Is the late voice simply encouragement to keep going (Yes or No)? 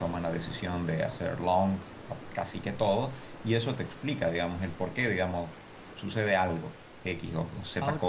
Yes